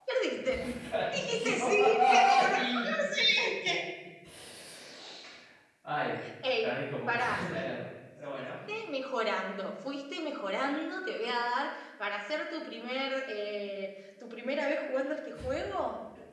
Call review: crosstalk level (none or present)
present